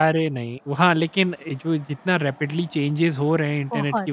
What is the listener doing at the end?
listening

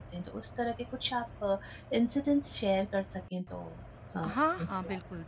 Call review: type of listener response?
taking over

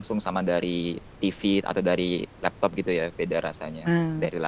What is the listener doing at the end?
taking over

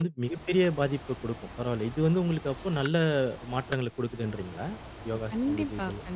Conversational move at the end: taking over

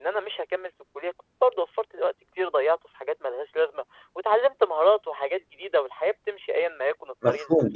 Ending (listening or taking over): taking over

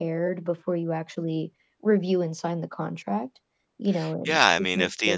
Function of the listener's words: taking over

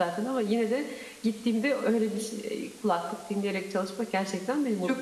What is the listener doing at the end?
taking over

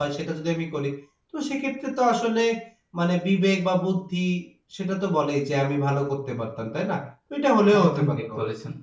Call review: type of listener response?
taking over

